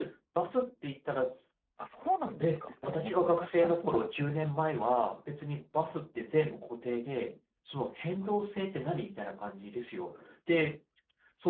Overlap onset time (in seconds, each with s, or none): 2.4 s